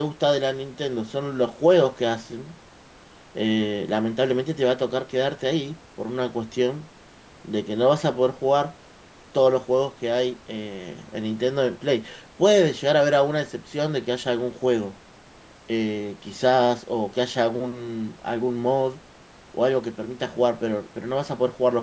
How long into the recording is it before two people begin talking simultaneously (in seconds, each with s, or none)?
none